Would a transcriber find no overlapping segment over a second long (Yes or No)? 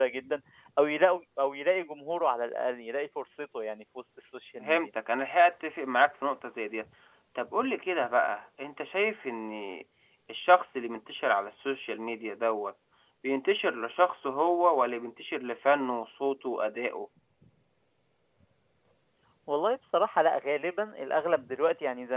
Yes